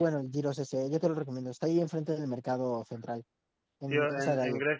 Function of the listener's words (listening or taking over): taking over